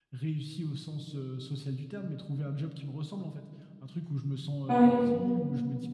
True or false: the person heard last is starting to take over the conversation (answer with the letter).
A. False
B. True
A